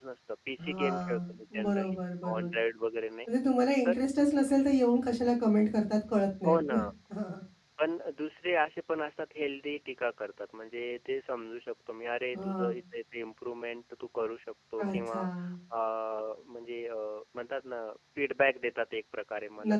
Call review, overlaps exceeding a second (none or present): present